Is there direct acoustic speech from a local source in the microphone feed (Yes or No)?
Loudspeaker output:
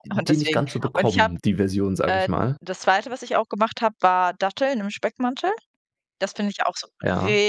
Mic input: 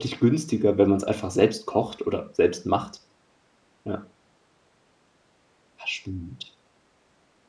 Yes